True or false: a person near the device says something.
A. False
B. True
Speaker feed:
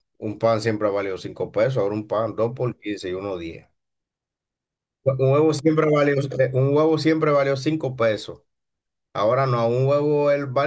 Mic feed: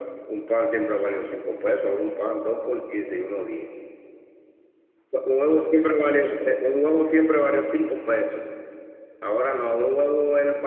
A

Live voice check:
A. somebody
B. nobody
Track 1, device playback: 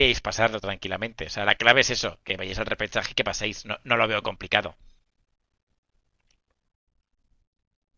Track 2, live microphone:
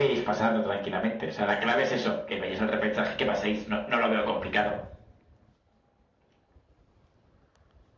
B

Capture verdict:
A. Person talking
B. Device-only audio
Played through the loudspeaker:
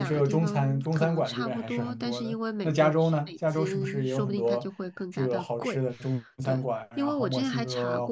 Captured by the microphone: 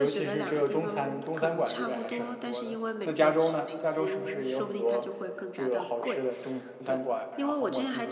B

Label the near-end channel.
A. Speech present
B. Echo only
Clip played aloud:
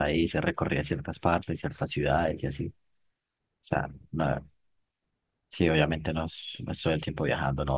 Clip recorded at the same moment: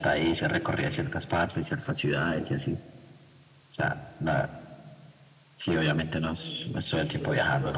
A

